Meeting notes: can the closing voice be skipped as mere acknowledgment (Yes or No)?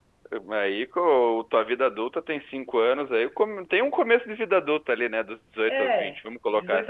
No